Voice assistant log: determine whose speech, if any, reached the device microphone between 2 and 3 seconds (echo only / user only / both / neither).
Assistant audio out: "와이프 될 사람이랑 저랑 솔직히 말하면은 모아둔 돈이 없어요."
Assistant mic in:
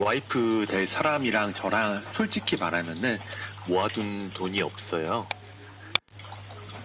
echo only